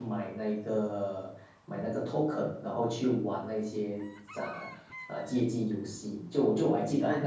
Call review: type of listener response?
listening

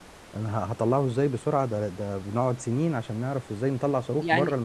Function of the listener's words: taking over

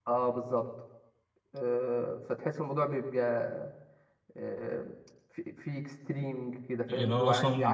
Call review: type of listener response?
taking over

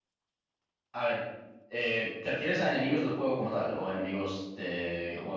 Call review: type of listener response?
taking over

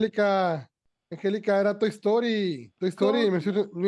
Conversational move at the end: listening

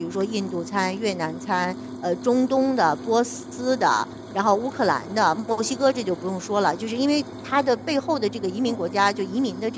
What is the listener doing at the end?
listening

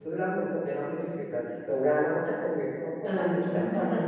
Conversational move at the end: taking over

